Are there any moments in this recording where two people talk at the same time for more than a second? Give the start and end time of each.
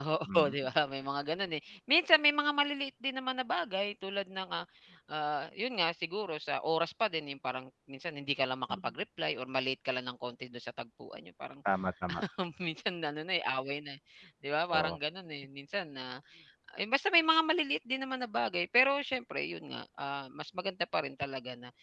none

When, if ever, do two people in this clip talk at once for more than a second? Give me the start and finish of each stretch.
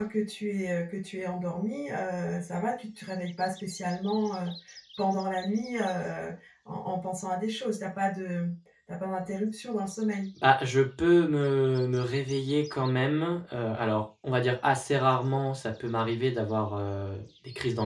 none

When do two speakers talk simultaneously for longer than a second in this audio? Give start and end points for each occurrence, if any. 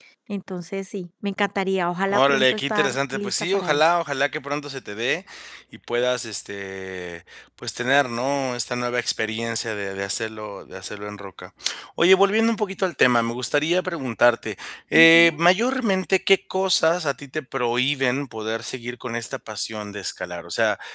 2.1-3.9

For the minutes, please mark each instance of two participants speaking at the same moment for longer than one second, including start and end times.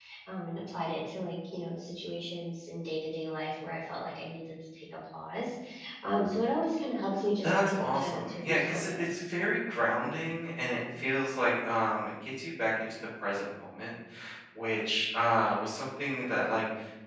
7.4-9.2

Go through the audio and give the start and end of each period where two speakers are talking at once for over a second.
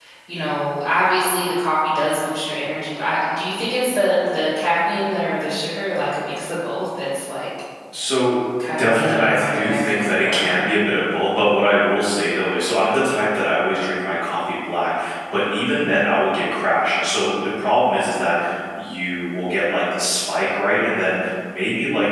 8.8-10.7

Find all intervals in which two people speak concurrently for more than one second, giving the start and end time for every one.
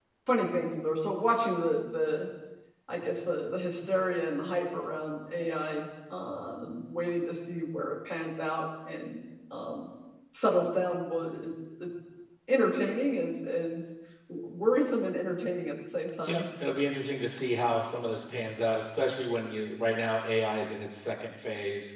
none

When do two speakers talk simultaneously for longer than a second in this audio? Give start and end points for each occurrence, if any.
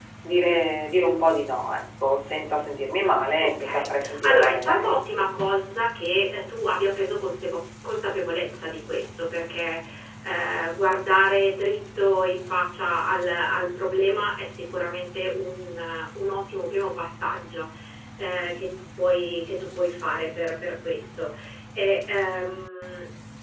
3.4-5.0

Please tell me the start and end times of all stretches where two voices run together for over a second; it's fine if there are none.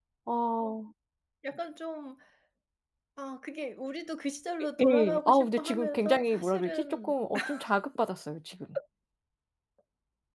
4.8-7.1

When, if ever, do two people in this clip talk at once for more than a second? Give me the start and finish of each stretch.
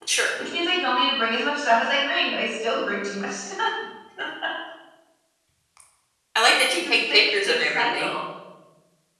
6.7-8.1

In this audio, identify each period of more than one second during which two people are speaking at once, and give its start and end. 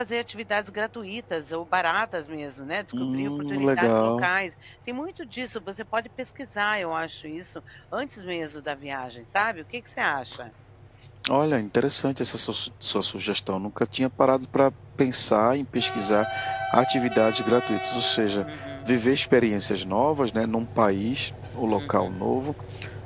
3.0-4.3

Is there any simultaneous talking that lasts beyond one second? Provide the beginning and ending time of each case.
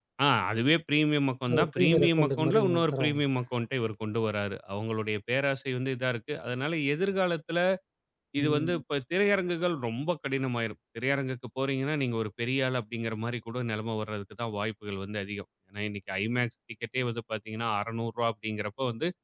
1.5-3.2

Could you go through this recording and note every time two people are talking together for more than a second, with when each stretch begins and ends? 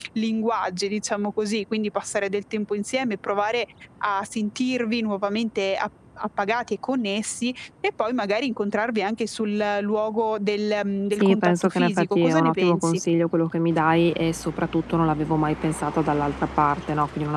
11.1-13.0

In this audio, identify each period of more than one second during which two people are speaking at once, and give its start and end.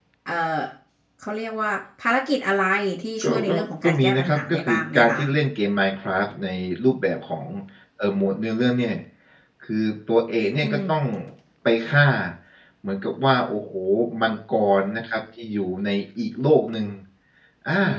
3.2-5.2

